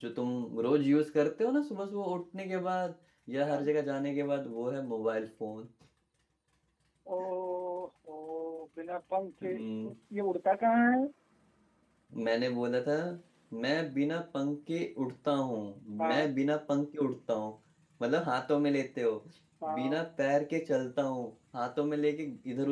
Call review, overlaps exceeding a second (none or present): none